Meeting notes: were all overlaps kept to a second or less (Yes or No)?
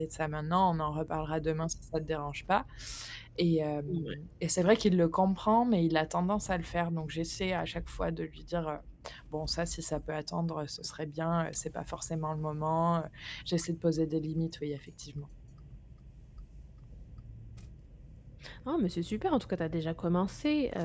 Yes